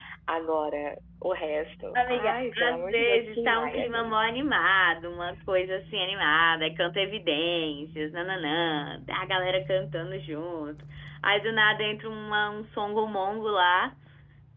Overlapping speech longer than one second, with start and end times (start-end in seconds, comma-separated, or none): 1.9-4.1